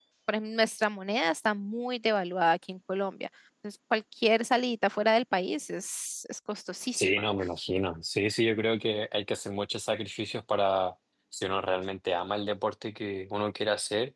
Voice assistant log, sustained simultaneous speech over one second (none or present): none